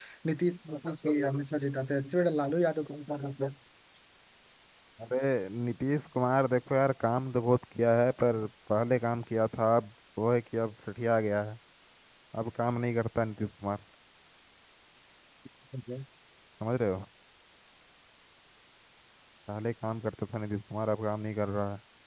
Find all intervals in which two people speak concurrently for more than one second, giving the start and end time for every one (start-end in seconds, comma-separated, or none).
none